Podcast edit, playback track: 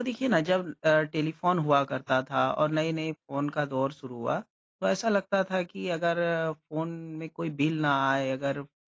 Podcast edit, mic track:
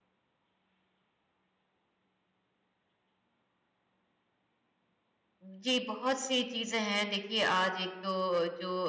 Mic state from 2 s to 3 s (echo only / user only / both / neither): neither